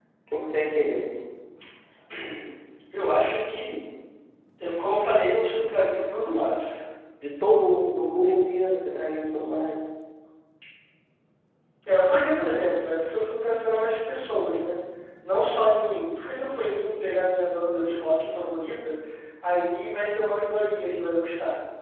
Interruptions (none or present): none